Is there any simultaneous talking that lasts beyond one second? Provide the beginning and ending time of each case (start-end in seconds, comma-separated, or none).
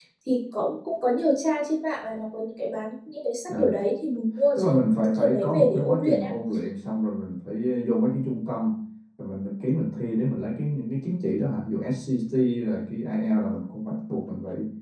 4.6-6.3